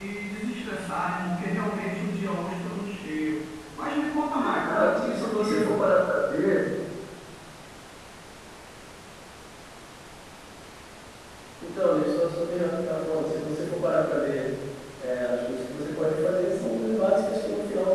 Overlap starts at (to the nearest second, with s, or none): 4 s